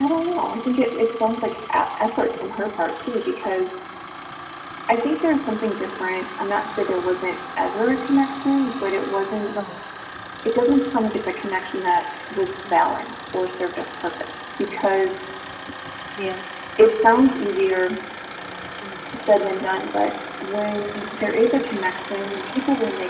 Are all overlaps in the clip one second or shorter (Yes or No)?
Yes